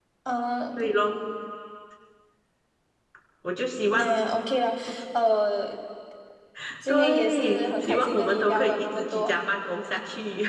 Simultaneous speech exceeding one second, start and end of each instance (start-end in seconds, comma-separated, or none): 6.9-9.3